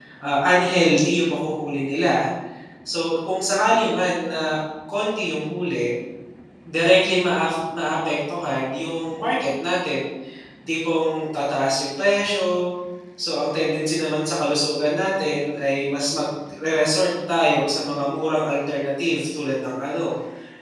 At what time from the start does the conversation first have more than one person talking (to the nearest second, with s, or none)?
none